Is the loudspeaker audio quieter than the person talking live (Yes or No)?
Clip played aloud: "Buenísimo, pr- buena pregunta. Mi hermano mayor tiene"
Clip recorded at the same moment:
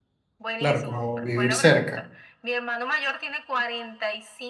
Yes